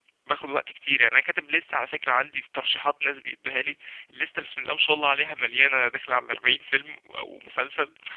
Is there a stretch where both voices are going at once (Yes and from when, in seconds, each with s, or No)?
No